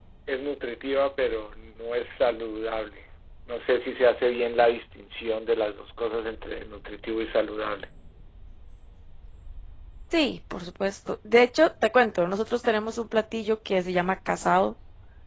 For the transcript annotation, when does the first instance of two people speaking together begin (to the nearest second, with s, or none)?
none